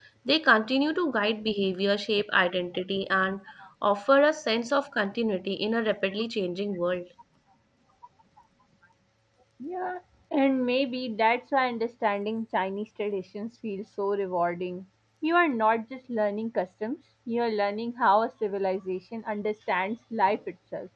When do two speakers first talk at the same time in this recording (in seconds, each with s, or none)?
none